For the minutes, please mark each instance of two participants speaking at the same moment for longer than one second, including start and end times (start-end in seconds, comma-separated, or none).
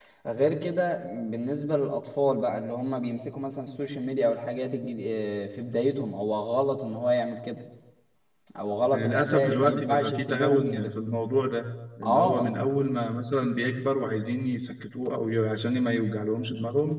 8.9-10.9